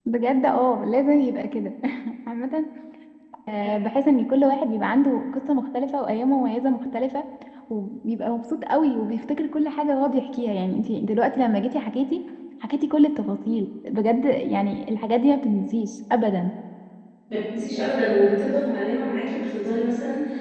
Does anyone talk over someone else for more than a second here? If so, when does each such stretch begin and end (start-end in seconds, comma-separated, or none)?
none